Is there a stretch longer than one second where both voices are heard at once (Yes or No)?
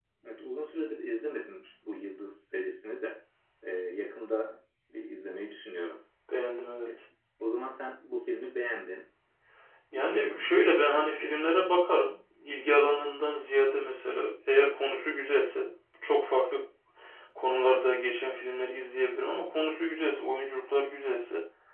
Yes